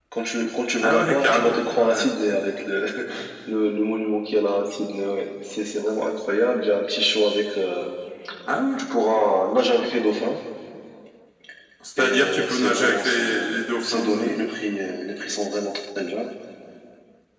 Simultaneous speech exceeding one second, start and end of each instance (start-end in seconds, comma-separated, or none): 0.8-2.0, 12.0-14.3